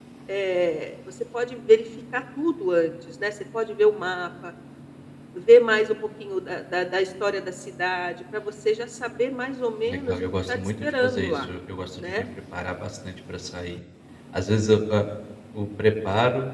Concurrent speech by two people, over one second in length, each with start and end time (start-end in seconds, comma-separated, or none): 9.9-11.5